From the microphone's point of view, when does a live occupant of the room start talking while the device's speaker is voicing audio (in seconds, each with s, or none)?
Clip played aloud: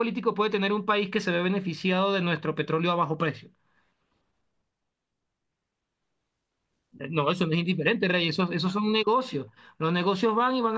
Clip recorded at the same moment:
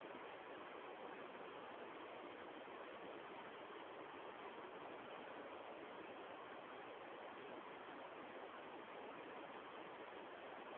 none